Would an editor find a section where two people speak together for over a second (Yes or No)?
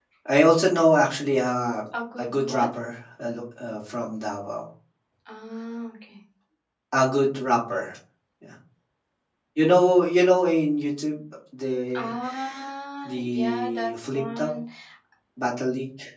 Yes